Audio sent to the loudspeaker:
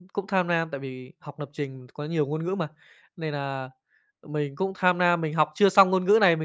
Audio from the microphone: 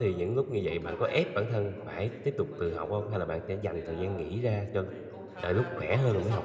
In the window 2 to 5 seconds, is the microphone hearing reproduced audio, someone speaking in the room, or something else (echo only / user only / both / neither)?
both